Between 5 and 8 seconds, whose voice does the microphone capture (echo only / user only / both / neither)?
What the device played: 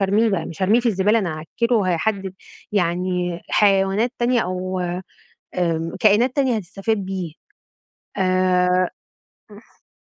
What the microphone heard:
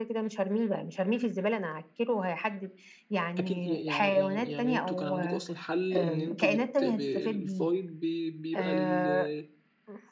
both